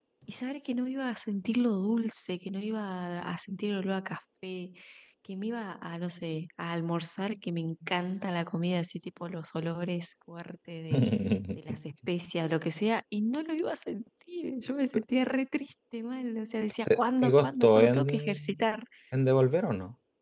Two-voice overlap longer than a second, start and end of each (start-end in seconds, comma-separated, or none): 16.9-18.6